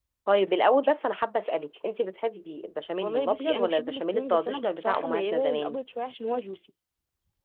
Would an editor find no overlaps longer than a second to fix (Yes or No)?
No